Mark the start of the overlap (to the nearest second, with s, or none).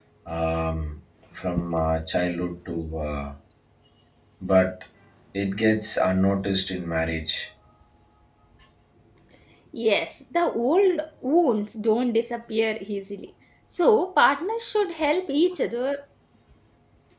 none